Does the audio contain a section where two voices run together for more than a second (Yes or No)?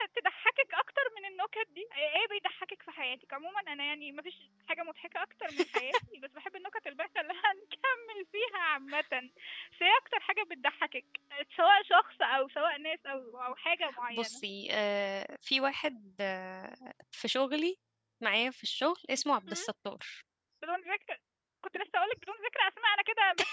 No